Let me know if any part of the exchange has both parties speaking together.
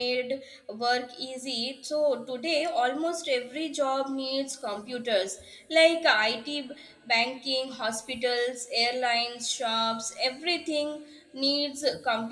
No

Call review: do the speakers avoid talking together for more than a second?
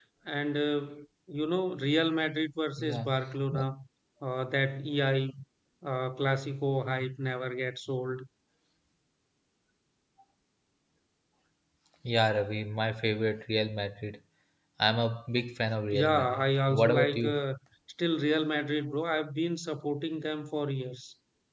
No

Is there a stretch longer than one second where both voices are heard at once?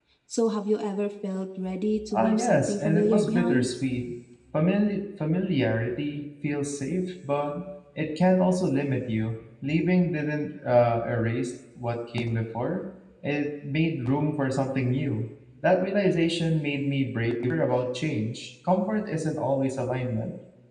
Yes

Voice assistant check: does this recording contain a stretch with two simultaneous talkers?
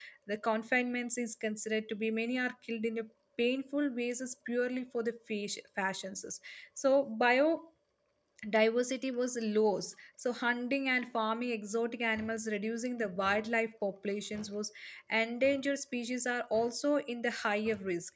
No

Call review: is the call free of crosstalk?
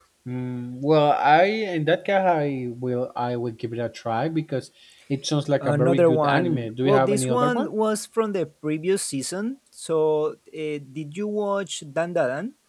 No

